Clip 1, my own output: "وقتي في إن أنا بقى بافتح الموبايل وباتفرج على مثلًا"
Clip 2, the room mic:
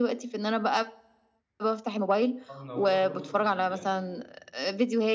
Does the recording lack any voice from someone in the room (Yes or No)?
No